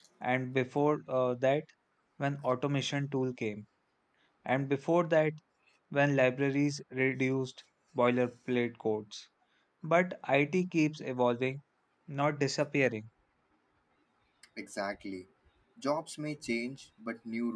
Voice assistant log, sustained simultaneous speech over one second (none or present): none